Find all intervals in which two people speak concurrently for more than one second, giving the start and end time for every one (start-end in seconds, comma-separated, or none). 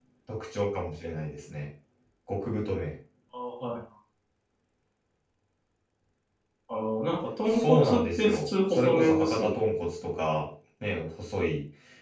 7.6-9.6